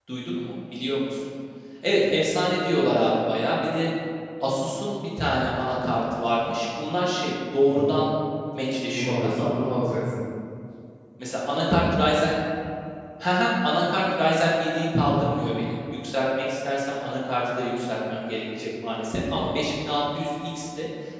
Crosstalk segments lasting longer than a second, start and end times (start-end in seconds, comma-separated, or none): none